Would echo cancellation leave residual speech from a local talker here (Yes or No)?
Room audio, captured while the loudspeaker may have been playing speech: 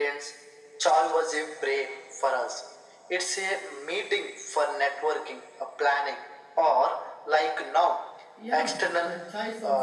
Yes